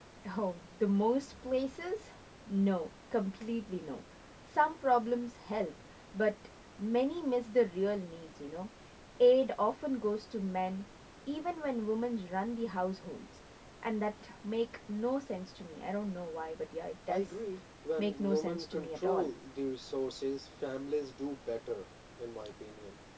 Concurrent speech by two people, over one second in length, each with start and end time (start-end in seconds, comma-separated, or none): 18.0-19.3